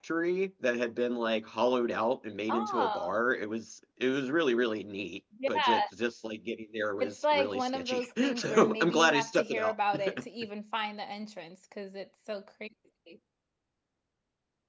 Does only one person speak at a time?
No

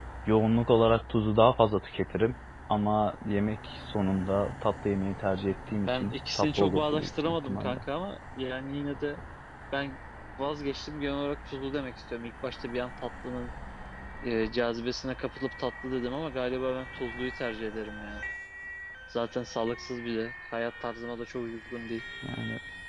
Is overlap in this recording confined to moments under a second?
No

